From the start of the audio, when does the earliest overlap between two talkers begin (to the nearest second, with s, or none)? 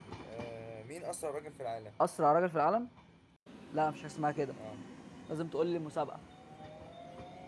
none